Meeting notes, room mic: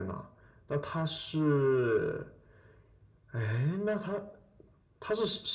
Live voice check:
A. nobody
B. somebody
A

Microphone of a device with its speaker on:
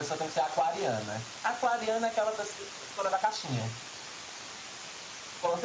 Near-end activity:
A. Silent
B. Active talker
A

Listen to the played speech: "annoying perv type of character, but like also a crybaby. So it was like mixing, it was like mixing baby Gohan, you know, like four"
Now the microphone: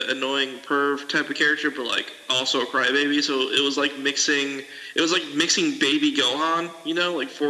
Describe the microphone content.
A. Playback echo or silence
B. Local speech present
A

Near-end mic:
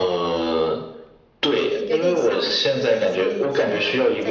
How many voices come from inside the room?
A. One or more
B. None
A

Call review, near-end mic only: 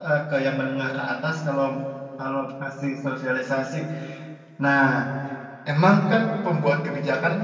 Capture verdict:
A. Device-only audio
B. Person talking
B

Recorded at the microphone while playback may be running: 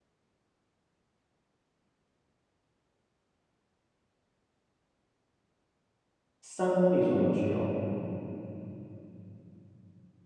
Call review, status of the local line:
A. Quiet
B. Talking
B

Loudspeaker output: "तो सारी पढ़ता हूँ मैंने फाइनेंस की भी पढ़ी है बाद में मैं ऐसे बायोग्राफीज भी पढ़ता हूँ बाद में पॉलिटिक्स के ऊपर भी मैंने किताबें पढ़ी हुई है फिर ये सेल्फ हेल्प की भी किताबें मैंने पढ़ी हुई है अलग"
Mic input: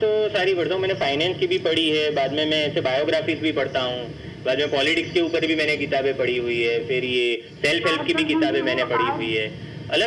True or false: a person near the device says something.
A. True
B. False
A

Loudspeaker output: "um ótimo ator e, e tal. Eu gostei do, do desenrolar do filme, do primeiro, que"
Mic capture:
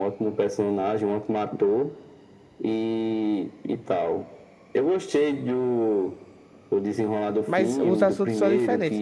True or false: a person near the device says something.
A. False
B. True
B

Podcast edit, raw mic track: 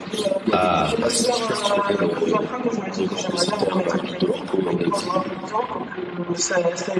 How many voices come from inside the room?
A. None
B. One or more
B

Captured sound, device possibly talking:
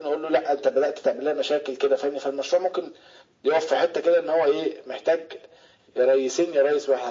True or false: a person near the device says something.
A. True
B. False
B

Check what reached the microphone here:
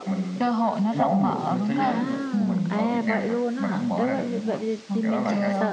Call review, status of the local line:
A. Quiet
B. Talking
B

